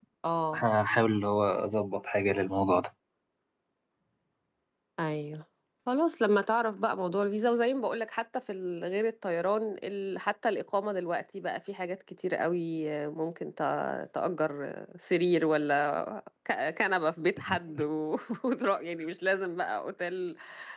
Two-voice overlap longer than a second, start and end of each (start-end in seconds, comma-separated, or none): none